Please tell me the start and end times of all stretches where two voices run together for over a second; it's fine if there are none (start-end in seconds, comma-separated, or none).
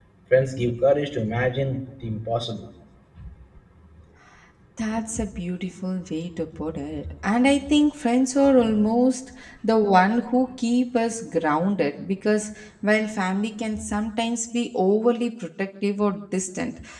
none